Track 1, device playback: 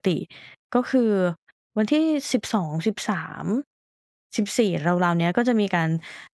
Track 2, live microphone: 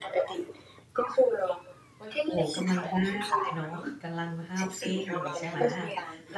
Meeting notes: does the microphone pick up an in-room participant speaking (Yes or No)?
Yes